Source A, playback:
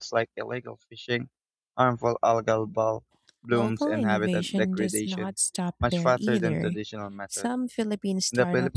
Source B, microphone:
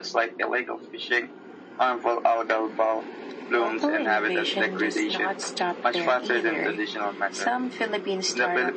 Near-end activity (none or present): none